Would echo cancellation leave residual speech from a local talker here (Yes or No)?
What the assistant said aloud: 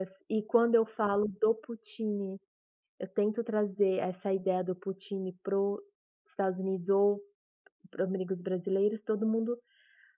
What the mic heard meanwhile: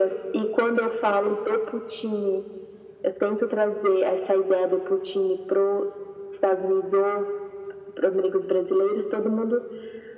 No